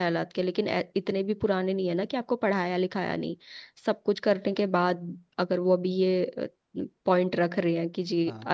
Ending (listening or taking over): listening